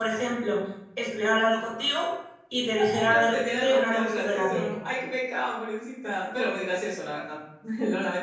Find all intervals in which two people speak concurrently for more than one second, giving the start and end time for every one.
2.9-4.7

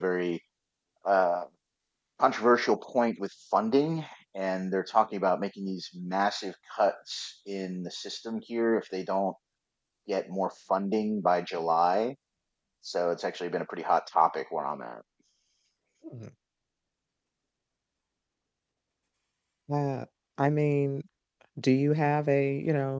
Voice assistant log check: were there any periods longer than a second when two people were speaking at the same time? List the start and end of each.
none

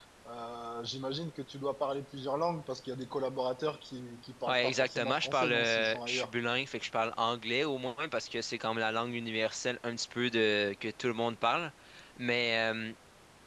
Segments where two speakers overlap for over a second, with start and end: 4.5-6.3

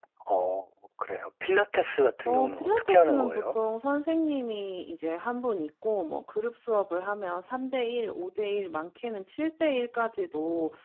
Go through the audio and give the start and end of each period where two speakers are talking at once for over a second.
2.2-3.5

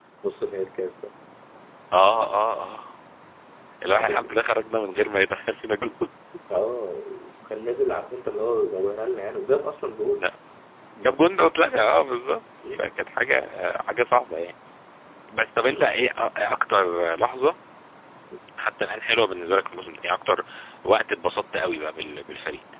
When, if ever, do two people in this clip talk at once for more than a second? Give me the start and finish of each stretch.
none

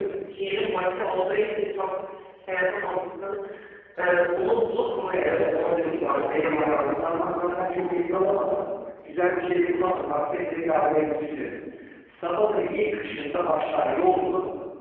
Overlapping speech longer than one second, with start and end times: 5.2-6.8

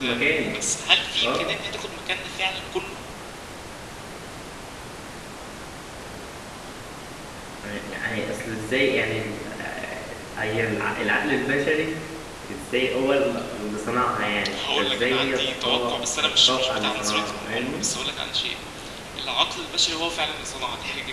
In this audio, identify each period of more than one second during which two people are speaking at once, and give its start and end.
14.5-17.9

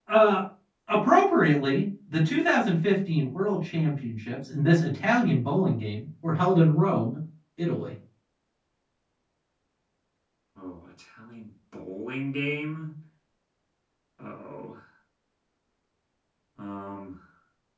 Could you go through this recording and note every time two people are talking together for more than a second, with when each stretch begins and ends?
none

